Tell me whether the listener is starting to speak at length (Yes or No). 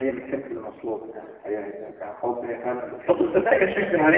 Yes